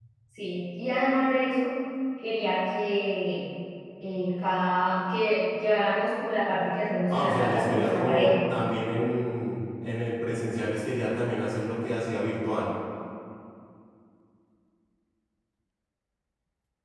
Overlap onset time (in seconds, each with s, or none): 7.1 s